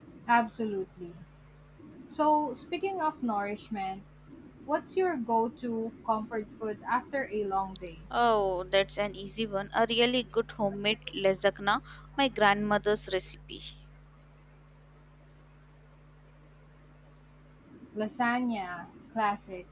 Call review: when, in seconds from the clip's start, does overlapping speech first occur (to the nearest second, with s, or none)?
none